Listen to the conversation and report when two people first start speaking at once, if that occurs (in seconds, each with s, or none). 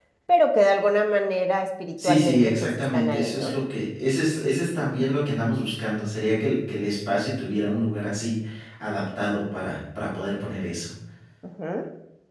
2.0 s